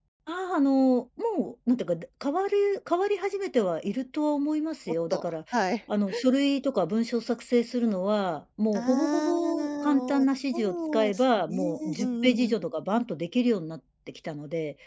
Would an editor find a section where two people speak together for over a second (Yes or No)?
Yes